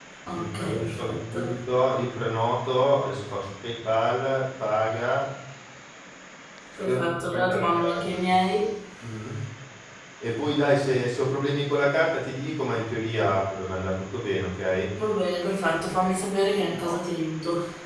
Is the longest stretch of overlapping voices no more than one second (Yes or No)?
No